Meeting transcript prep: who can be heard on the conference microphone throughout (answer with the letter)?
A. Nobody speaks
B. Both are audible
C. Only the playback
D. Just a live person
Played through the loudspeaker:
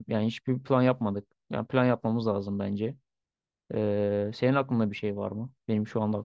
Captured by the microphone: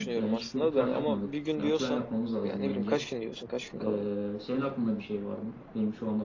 B